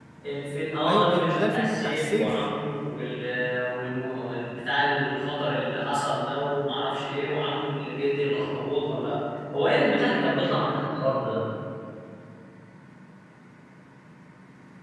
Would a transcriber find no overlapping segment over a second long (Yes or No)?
No